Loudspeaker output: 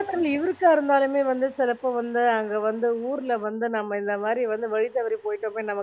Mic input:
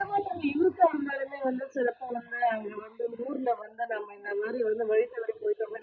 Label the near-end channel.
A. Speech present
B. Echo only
B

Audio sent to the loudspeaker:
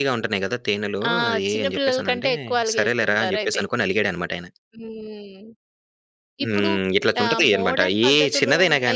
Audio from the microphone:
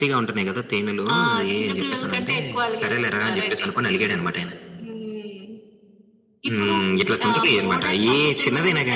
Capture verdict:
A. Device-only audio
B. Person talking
A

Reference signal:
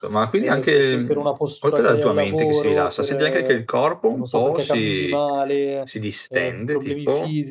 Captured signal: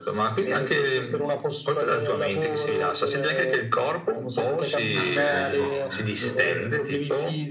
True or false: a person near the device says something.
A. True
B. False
A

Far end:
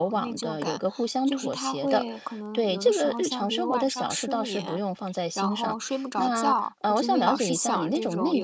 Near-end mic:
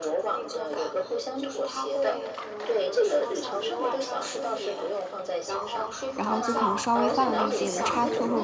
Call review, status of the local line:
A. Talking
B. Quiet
A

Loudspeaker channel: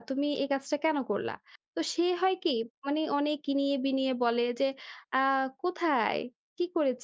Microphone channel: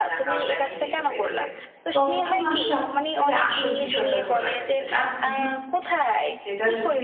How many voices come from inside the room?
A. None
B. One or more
B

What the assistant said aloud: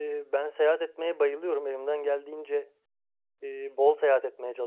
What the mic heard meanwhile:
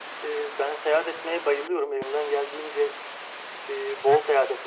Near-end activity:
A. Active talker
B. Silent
B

